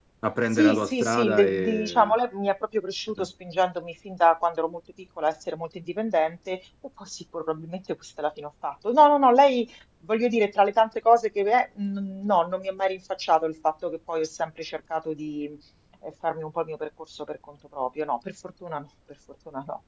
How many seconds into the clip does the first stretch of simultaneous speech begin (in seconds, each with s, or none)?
0.5 s